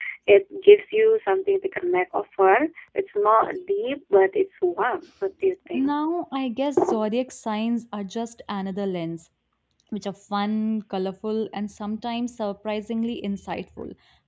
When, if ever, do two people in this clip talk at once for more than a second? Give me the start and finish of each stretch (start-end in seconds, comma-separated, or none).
none